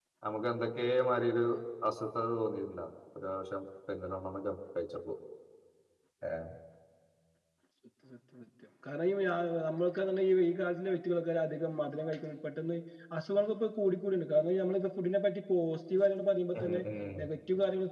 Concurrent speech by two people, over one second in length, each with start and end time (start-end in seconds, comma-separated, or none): none